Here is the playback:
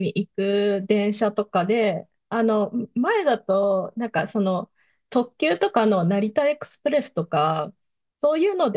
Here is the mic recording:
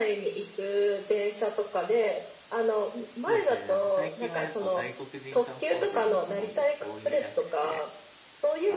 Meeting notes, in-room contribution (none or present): present